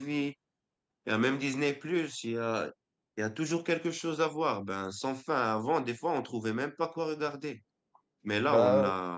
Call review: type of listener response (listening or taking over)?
listening